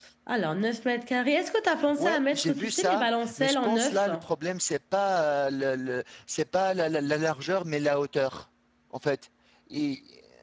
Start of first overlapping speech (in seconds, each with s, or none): 1.7 s